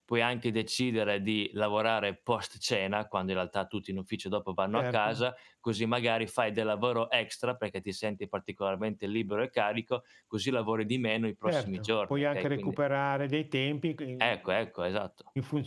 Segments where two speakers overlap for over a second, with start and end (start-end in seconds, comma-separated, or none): 11.4-12.8